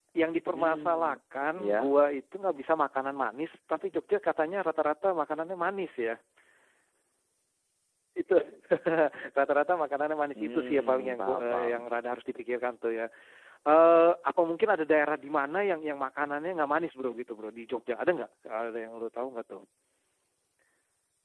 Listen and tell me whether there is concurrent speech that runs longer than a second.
Yes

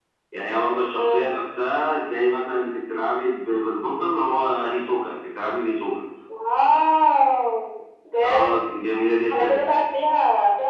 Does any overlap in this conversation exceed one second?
No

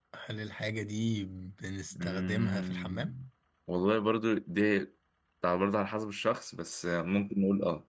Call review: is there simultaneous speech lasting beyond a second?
Yes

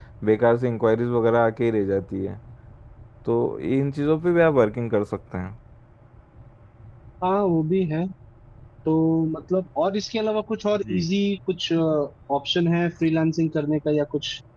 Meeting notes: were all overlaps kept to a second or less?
Yes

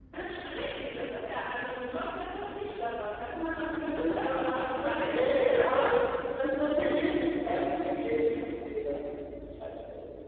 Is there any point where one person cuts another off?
Yes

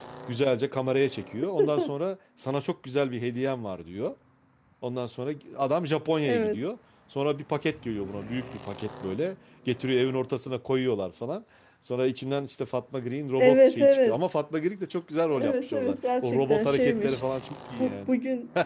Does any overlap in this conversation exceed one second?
Yes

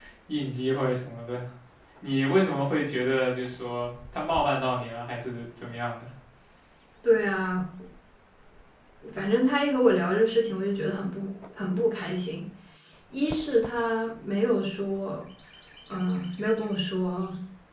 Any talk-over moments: No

